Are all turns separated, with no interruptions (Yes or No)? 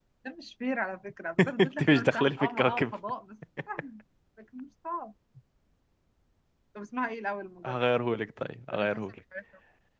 No